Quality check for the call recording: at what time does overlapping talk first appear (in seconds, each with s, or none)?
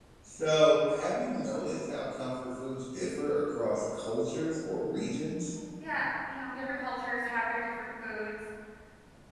none